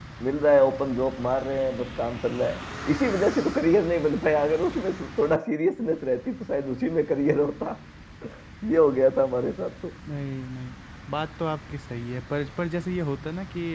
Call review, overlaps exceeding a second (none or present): none